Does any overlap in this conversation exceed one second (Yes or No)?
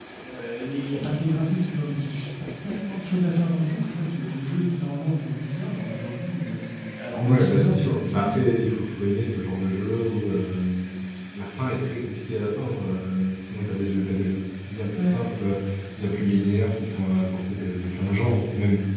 Yes